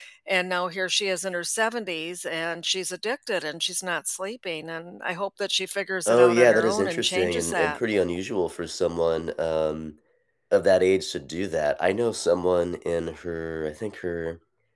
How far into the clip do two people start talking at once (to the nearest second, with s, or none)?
6 s